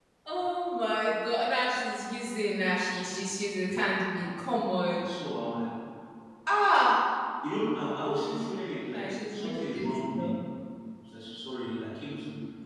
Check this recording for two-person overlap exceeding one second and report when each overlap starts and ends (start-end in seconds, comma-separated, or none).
8.9-10.3